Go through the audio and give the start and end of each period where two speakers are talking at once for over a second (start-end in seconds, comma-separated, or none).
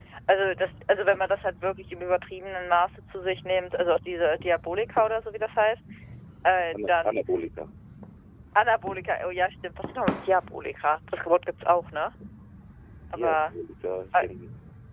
none